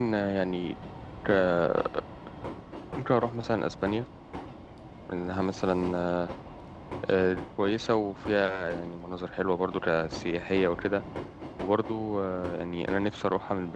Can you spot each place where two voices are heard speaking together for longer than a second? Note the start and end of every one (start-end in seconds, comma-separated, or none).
none